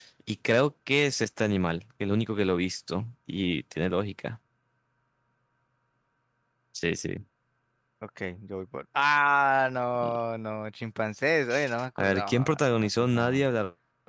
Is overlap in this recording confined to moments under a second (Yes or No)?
No